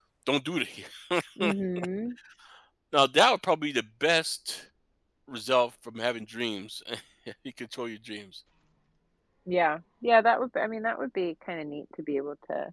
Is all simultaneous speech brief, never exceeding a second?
Yes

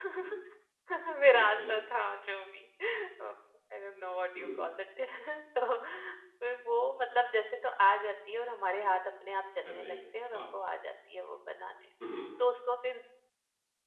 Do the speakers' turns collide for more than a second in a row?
No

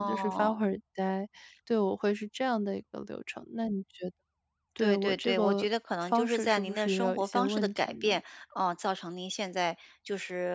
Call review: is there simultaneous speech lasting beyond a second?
Yes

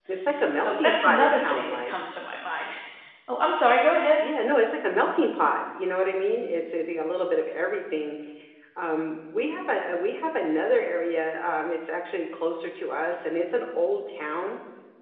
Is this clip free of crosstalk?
No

